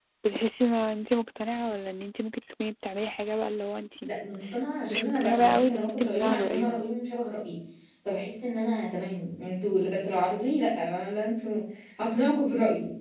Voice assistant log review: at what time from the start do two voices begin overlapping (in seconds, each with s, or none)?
4.9 s